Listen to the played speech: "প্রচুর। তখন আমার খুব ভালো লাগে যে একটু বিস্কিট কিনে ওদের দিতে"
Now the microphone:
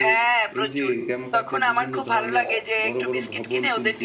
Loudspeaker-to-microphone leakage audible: Yes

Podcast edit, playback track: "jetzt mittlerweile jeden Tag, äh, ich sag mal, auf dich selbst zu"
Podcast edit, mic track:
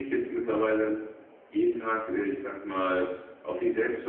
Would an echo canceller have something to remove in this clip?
Yes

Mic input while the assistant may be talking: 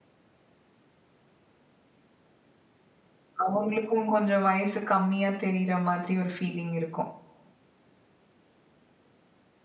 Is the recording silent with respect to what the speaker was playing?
Yes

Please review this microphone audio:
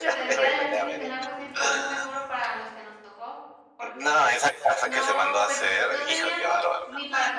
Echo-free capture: No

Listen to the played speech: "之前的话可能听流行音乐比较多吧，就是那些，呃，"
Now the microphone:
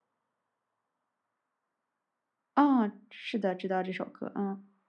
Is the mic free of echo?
Yes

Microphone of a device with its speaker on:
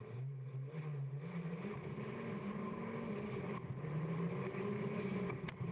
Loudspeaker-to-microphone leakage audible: No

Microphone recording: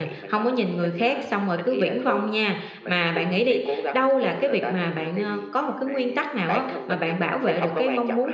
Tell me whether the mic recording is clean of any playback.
No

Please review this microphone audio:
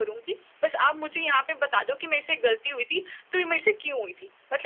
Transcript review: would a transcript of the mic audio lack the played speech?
No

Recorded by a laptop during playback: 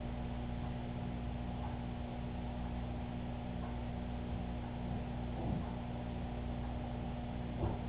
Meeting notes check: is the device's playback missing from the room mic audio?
Yes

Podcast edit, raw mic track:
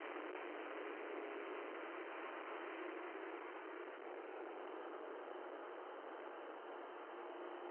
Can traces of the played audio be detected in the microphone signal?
No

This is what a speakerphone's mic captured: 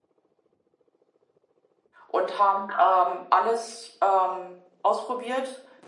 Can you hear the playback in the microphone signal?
No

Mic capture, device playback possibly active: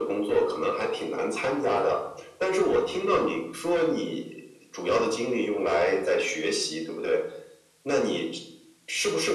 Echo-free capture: No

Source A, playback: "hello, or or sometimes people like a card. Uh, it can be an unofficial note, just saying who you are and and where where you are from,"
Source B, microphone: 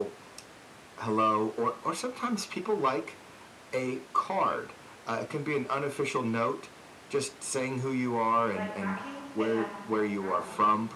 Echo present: Yes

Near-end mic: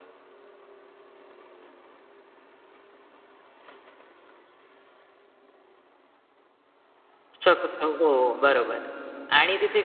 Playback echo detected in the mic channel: No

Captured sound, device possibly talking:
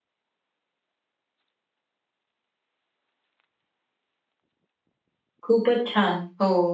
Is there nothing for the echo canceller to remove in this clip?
Yes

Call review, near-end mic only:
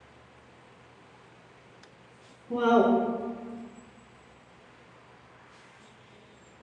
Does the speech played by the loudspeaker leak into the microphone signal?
No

